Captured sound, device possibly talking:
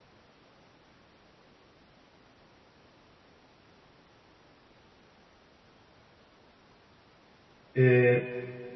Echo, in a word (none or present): none